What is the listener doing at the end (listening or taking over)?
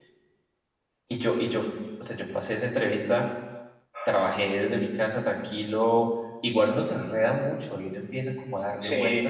listening